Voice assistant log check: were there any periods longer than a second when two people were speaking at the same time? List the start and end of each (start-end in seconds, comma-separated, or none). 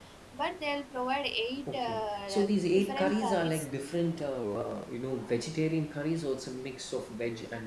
1.7-3.7